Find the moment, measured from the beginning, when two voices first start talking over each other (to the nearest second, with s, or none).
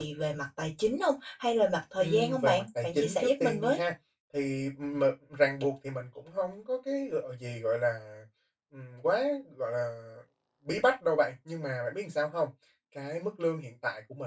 2 s